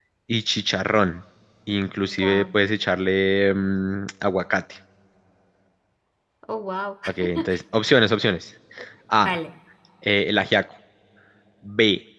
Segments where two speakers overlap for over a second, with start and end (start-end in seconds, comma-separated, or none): none